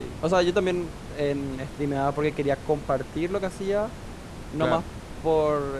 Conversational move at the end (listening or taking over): listening